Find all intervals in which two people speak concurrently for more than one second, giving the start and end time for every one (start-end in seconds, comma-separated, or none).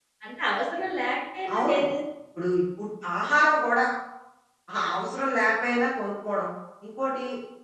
none